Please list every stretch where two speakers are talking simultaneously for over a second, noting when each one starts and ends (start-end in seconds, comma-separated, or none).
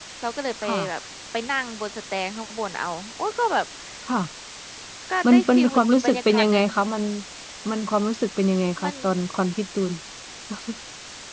5.3-6.6